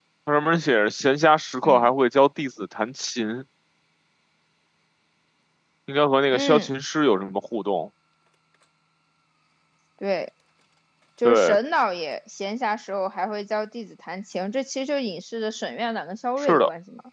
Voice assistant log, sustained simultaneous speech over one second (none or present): none